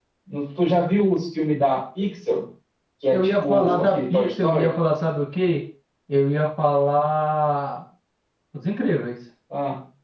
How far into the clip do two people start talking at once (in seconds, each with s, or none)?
3.1 s